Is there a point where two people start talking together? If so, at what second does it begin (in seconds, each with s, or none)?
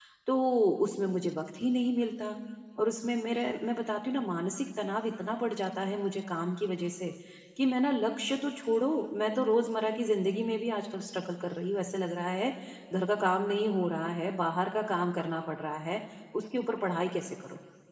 none